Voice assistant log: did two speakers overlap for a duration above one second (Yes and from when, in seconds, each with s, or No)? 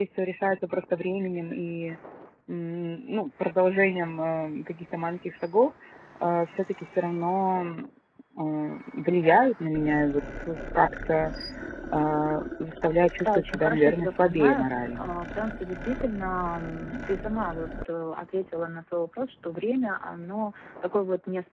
Yes, from 13.2 s